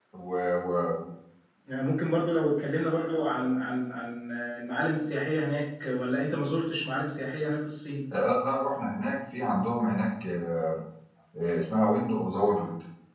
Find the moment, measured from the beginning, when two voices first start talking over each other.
none

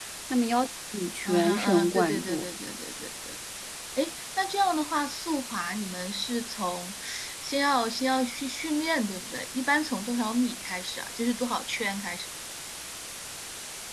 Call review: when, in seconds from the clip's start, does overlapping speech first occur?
1 s

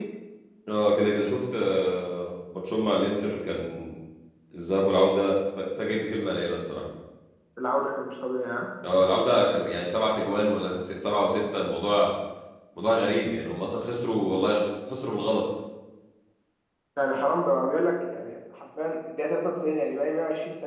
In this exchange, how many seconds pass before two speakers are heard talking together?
none

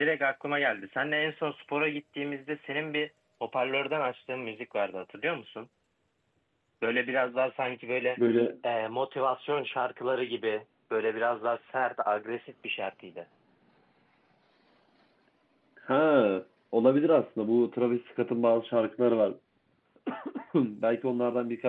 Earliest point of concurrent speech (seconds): none

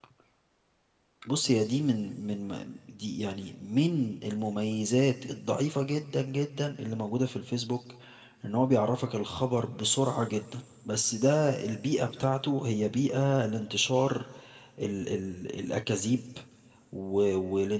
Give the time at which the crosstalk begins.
none

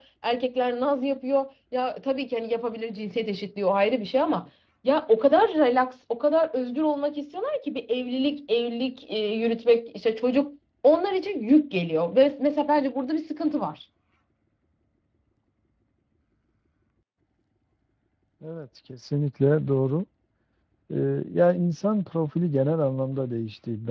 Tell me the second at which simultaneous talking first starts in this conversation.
none

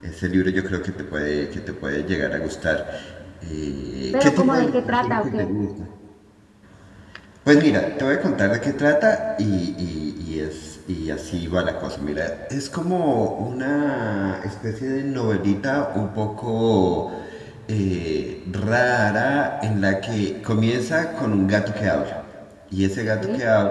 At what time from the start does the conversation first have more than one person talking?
4 s

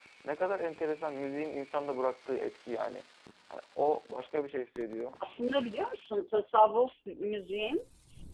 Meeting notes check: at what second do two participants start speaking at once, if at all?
none

